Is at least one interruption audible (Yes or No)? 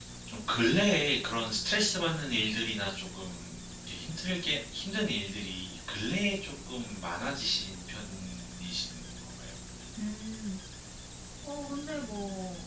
No